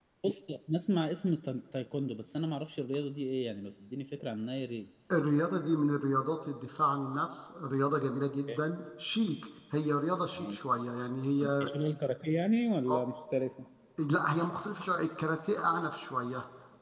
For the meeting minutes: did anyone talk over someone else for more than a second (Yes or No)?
No